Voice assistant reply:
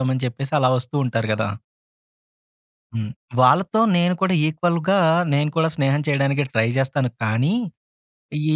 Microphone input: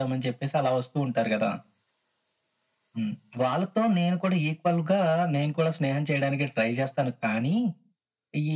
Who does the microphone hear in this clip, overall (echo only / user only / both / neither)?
echo only